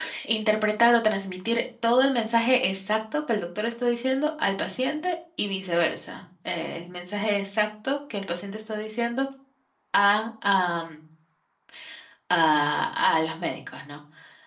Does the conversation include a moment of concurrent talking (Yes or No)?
No